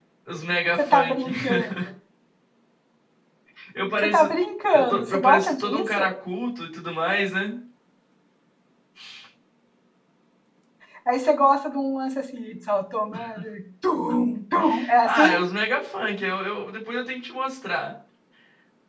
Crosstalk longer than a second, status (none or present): present